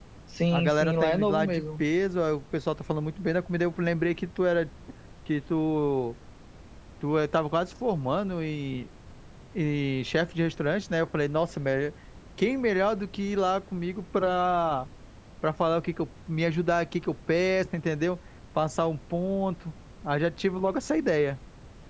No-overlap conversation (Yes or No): No